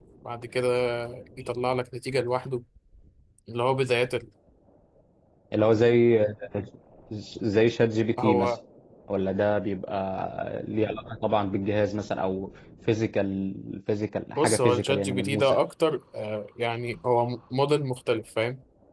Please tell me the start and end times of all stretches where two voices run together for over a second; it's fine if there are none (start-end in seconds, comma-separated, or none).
14.3-15.6